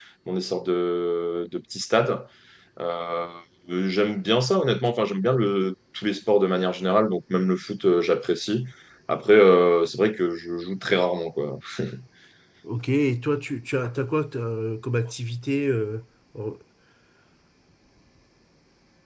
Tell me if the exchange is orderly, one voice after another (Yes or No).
Yes